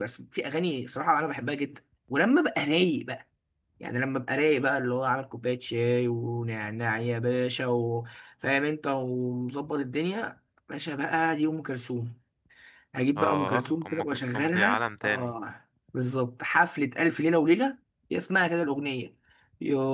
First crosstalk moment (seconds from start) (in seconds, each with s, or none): 13.2 s